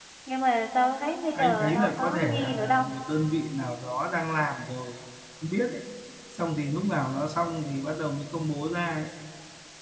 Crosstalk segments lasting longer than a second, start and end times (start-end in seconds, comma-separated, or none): 1.3-2.9